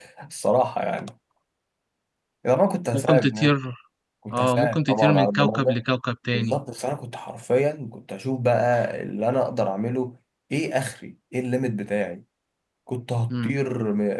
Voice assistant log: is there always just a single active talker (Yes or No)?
No